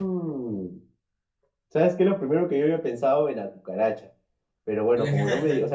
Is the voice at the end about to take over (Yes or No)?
No